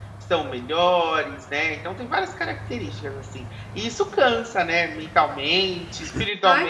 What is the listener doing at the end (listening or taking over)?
taking over